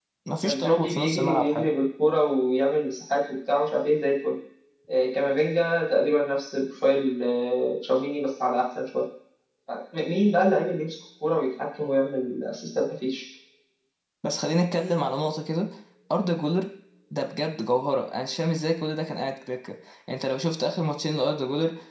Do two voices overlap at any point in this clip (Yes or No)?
Yes